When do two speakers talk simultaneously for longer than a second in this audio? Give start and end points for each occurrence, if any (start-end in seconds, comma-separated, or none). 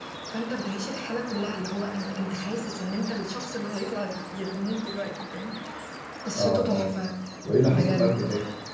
none